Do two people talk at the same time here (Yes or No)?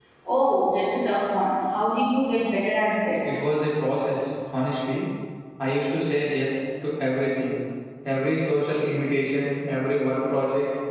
No